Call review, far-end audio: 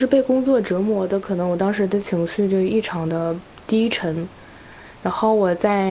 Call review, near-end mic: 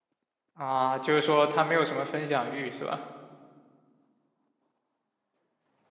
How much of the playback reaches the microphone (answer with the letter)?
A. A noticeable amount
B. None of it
B